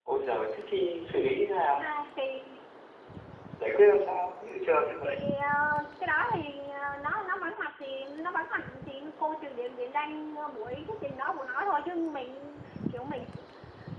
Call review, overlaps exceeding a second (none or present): none